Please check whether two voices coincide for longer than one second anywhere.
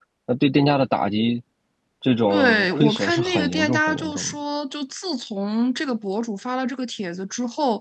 Yes, from 2.3 s

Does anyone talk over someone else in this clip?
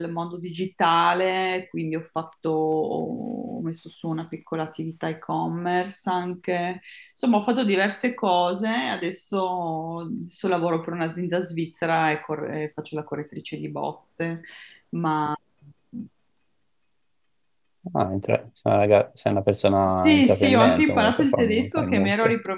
Yes, from 19.9 s

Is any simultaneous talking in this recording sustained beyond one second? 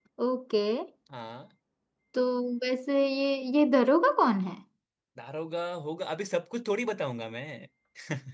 No

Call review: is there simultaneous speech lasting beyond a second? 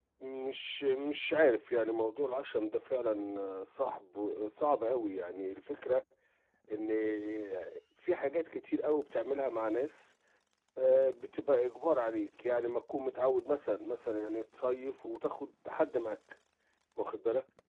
No

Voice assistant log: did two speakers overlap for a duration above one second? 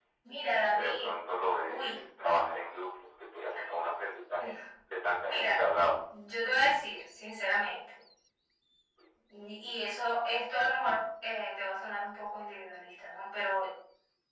No

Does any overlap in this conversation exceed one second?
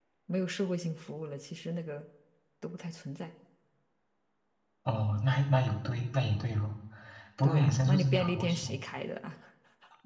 Yes, from 7.4 s

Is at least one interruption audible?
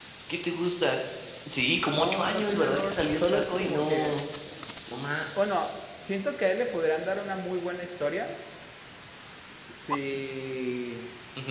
Yes, from 1.9 s

